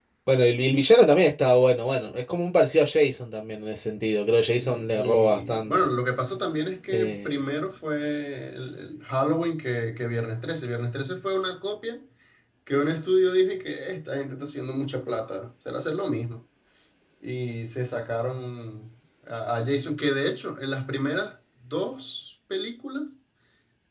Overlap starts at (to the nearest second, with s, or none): 5 s